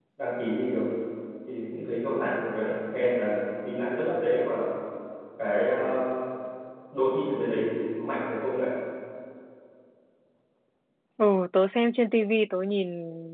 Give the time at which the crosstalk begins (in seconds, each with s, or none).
none